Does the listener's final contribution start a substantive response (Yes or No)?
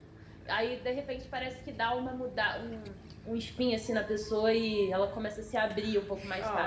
Yes